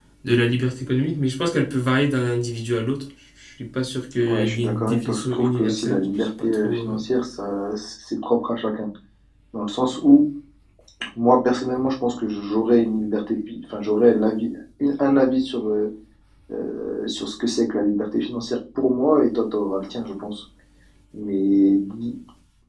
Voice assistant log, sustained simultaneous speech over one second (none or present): present